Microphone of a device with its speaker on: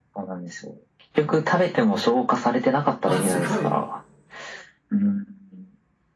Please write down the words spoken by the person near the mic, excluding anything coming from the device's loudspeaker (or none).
あ、すごい。